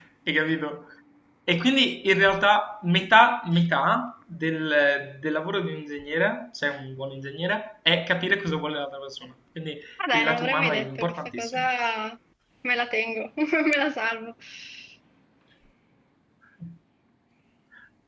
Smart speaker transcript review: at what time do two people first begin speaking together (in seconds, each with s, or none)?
10.0 s